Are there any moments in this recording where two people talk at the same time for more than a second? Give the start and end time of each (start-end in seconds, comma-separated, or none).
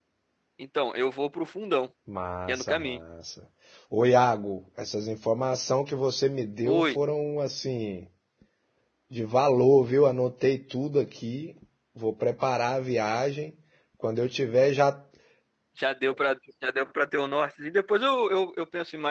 none